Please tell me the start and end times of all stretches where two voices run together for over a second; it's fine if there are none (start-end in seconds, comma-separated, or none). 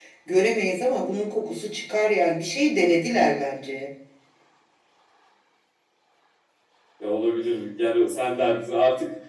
none